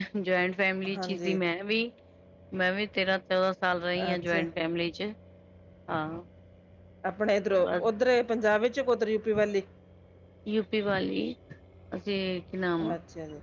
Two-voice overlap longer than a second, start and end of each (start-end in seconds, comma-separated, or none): none